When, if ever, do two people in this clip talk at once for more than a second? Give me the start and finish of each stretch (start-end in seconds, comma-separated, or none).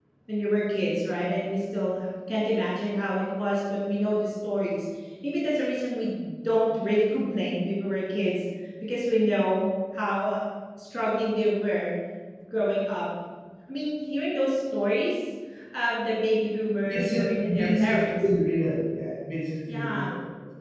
16.8-18.1